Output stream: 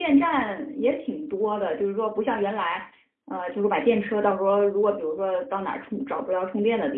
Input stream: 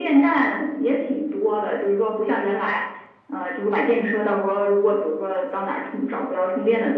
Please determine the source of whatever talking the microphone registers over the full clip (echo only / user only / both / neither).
echo only